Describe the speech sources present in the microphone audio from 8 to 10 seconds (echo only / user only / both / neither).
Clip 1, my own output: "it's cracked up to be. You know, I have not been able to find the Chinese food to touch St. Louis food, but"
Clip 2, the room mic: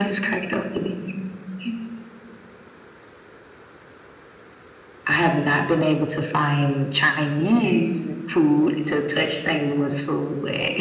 both